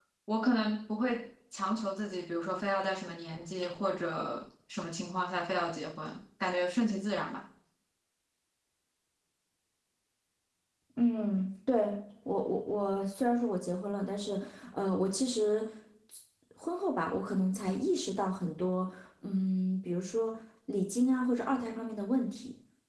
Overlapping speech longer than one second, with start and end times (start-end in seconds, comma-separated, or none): none